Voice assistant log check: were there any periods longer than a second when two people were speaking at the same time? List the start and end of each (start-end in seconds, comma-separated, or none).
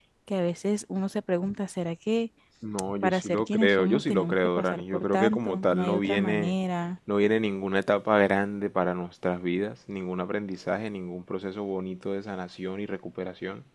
3.0-6.5